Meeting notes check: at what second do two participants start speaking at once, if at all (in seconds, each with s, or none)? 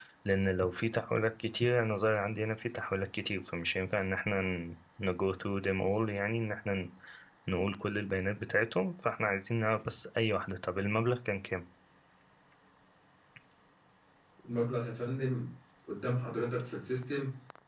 none